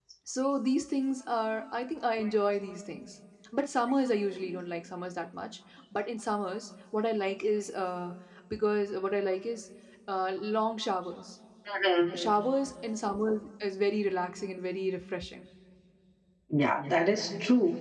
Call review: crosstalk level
none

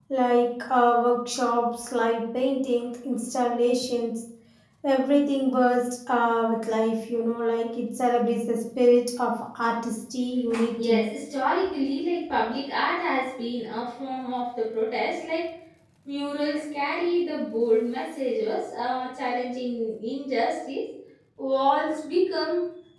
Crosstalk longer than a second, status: none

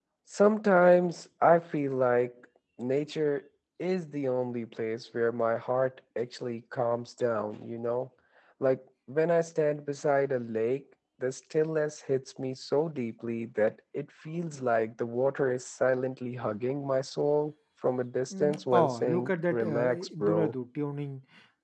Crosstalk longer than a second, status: present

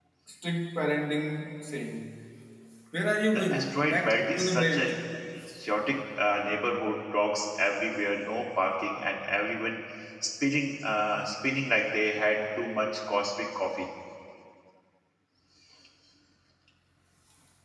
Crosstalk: present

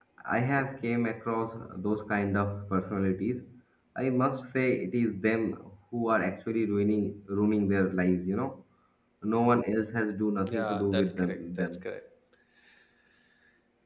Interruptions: present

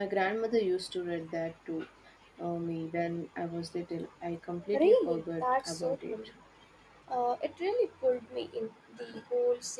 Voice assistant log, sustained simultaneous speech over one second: present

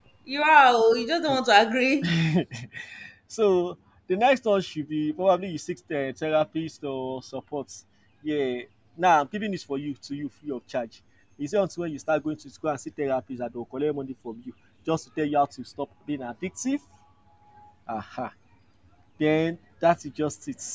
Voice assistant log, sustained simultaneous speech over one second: none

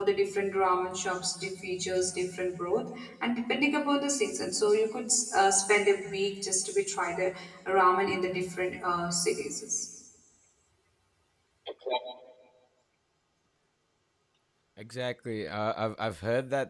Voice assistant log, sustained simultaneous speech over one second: none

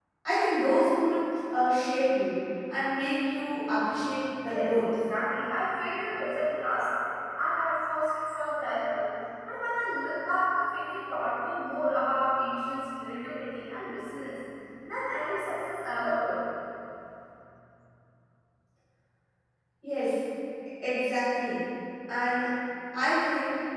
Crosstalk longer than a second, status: none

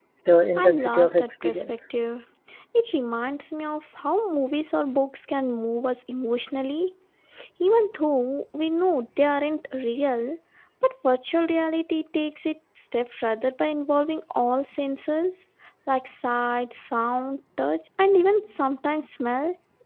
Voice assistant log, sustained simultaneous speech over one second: present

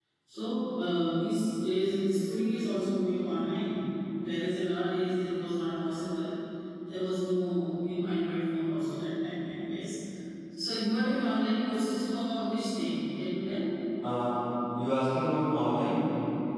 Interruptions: none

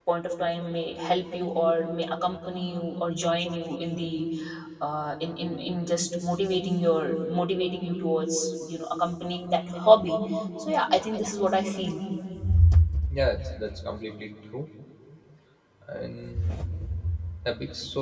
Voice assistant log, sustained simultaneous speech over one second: none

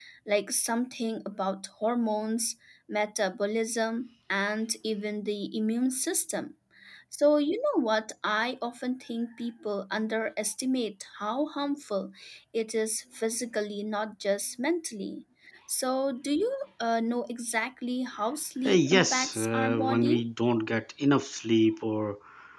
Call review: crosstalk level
present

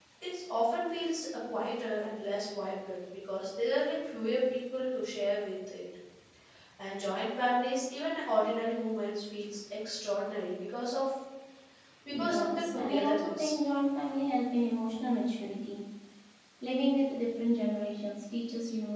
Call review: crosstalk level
present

